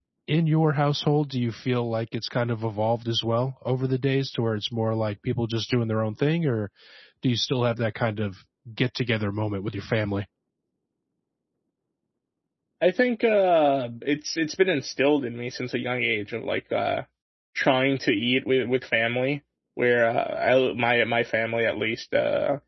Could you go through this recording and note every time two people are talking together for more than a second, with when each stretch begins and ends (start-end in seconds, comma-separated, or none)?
none